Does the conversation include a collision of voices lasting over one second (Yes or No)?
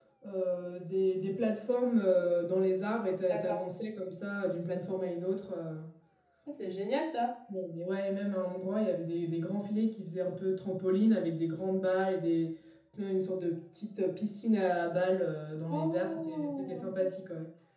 Yes